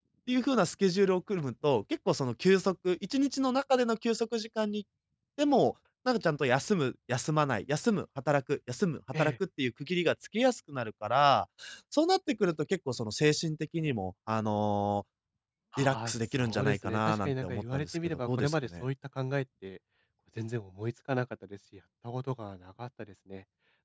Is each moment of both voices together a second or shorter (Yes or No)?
No